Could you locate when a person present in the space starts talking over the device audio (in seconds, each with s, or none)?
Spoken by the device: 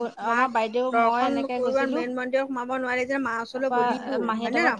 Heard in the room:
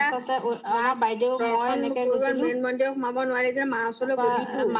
none